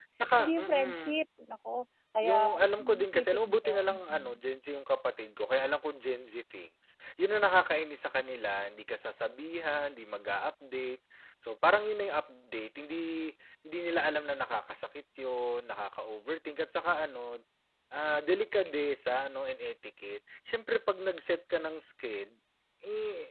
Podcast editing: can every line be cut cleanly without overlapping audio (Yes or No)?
No